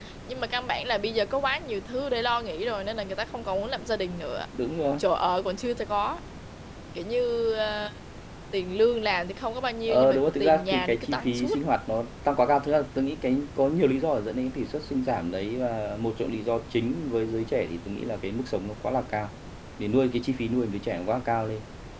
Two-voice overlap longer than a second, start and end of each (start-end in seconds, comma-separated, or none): 9.9-11.6